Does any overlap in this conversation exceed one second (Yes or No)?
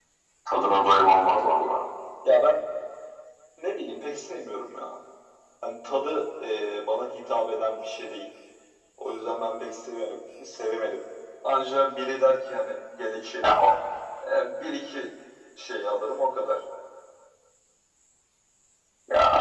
No